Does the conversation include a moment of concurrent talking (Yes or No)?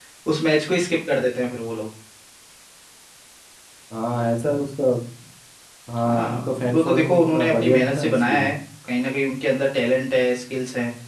Yes